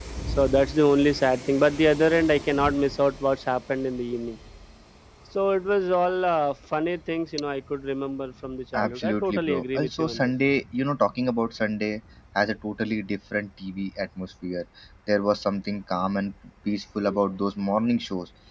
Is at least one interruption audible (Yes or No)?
Yes